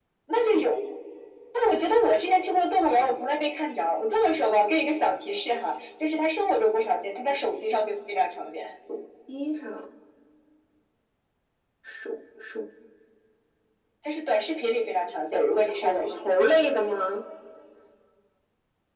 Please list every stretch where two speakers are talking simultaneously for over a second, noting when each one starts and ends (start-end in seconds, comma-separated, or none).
15.3-16.6